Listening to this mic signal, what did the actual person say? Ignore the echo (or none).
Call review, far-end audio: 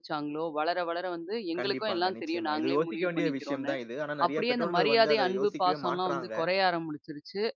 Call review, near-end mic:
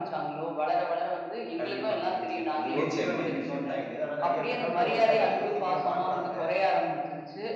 நிச்சயமா.